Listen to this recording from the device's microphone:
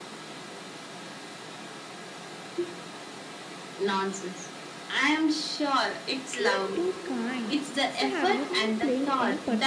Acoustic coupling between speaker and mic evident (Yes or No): Yes